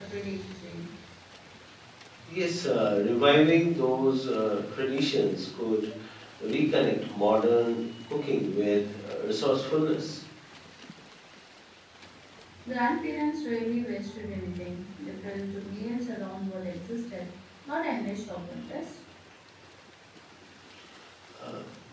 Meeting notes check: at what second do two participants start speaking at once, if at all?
none

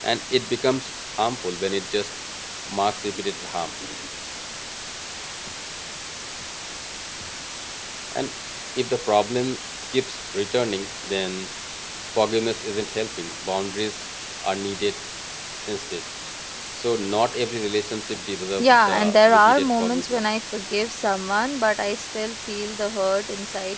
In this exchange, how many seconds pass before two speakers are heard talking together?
18.6 s

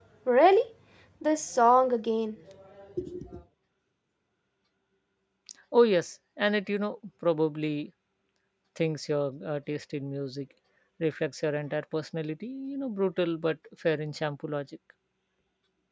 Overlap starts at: none

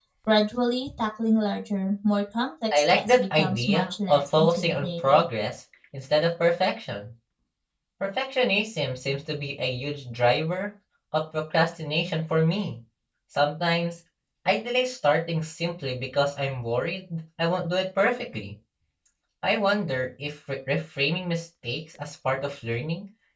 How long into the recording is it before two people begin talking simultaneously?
2.7 s

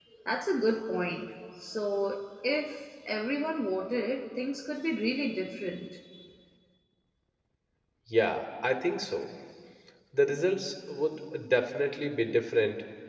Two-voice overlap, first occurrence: none

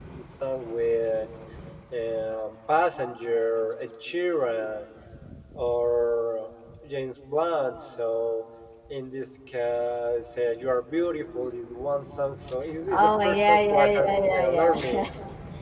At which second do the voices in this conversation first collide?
12.9 s

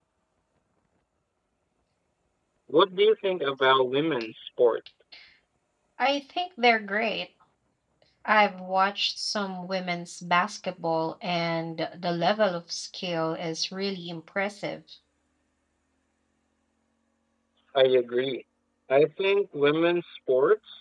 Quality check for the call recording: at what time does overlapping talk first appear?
none

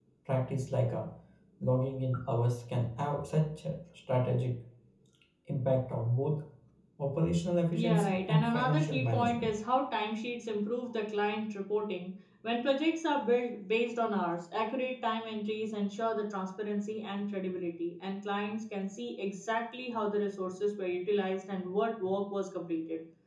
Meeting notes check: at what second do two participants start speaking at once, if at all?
7.7 s

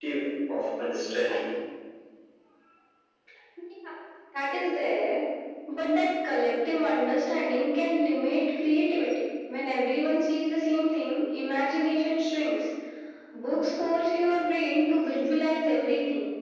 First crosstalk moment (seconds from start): none

